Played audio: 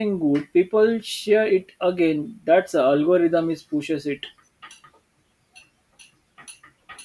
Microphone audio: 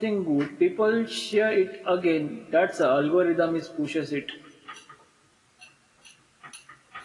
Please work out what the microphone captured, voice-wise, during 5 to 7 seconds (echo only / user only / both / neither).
neither